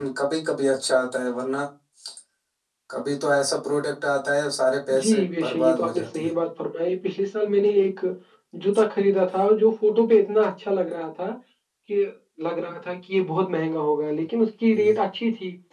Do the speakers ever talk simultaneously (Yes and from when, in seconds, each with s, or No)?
Yes, from 4.9 s